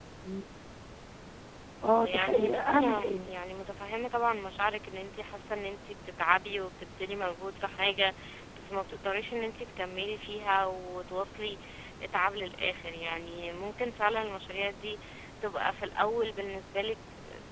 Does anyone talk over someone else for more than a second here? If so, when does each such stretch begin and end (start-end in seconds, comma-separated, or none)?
2.0-3.3